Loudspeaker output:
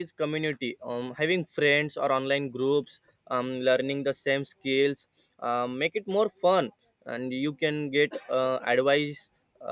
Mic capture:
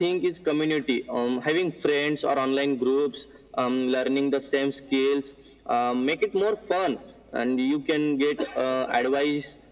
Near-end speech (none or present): none